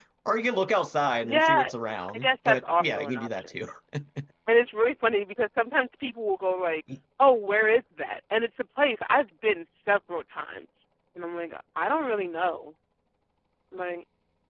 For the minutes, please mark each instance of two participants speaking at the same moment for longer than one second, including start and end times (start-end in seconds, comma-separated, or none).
2.1-3.5